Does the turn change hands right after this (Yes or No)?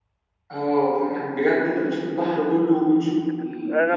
Yes